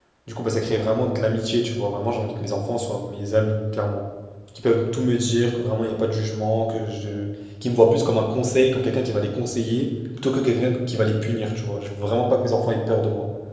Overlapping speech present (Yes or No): No